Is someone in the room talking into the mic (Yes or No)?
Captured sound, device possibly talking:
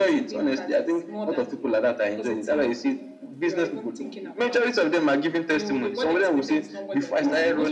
No